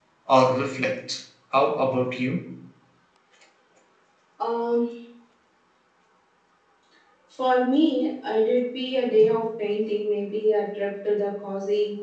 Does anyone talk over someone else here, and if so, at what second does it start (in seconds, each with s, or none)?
none